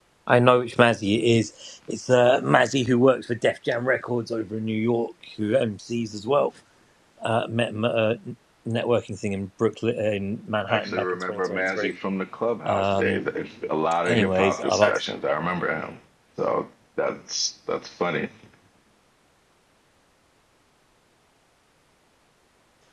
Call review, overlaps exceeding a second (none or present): present